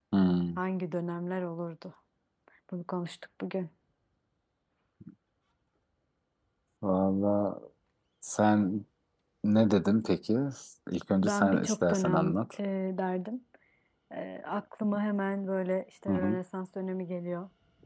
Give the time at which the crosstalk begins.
11.2 s

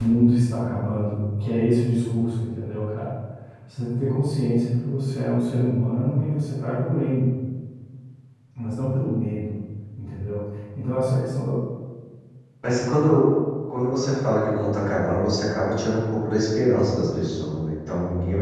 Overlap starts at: none

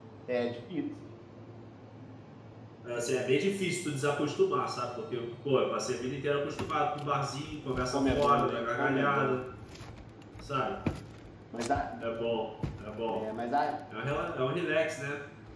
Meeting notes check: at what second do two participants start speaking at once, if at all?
7.9 s

